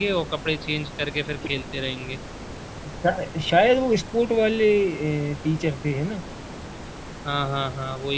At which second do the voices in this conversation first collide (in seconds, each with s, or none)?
none